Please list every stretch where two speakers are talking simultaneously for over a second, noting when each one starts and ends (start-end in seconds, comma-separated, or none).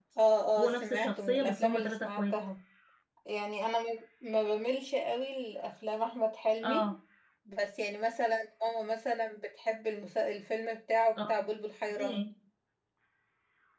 0.6-2.3